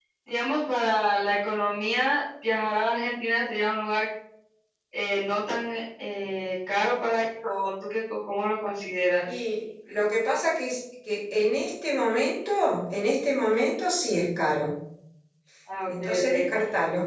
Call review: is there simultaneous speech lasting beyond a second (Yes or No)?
No